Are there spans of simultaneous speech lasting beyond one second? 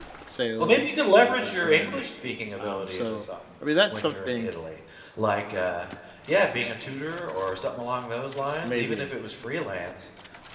Yes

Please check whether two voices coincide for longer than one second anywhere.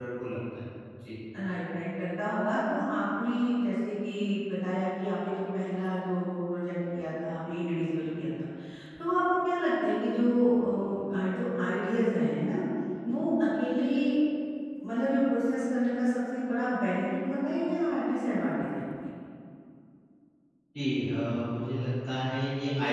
No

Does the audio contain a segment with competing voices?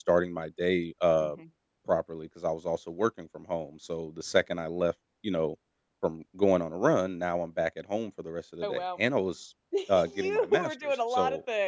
Yes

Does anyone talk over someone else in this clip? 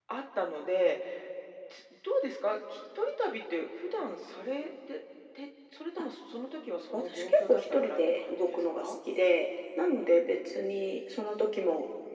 Yes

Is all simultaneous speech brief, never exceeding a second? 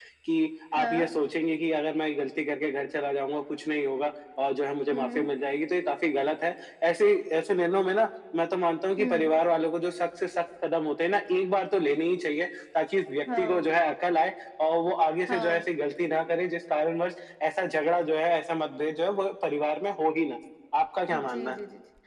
Yes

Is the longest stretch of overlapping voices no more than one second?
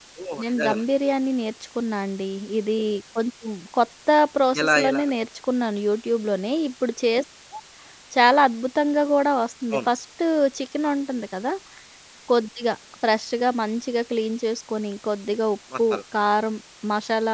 Yes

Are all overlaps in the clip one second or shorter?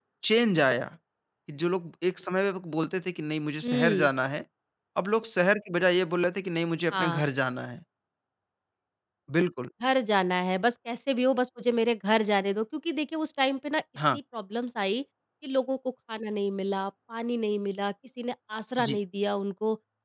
Yes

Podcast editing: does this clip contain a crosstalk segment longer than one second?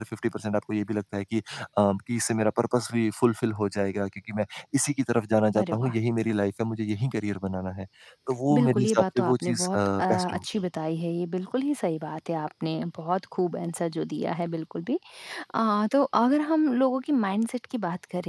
Yes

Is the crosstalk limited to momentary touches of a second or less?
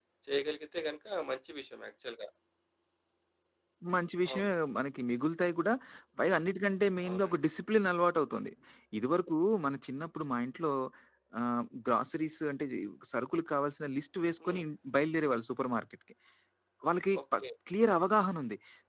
Yes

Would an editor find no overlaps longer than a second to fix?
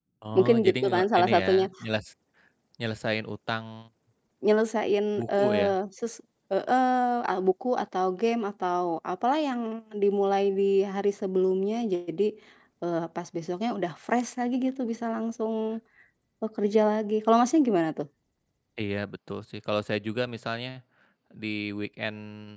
No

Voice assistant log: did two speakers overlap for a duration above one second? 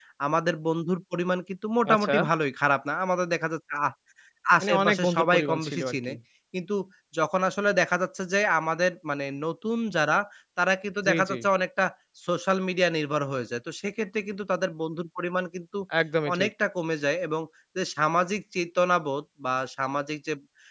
Yes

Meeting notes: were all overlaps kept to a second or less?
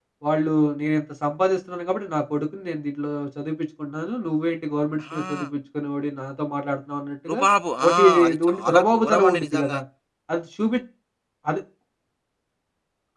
No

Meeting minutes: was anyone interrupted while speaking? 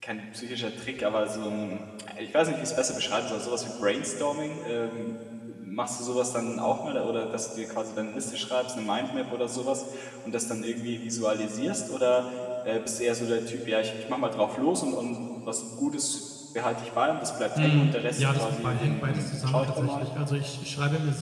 Yes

